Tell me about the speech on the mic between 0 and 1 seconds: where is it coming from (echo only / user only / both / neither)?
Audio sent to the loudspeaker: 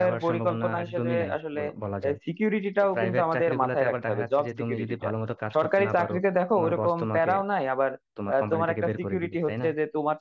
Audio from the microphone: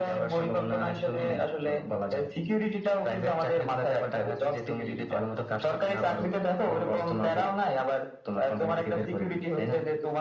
echo only